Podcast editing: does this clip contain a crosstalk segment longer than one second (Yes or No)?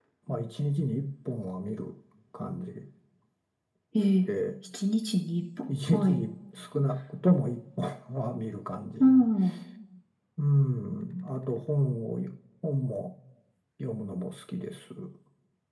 No